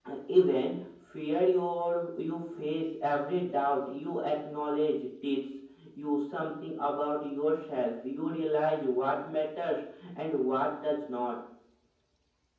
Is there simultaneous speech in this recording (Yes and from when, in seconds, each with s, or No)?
No